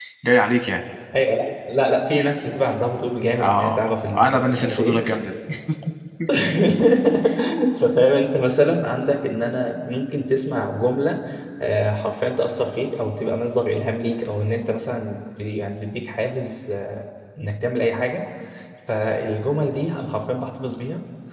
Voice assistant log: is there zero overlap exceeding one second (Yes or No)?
No